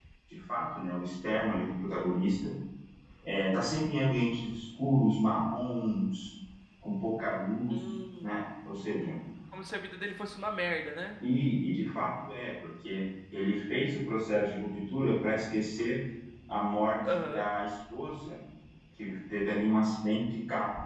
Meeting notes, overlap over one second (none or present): none